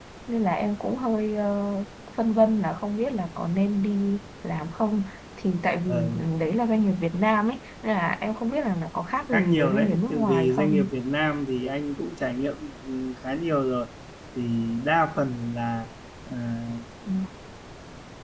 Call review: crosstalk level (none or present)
present